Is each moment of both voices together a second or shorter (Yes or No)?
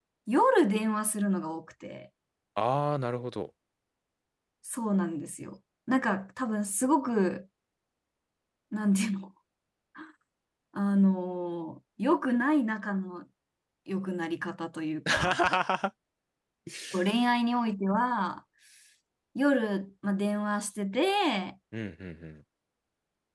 Yes